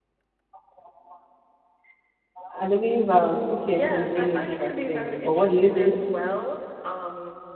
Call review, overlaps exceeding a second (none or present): present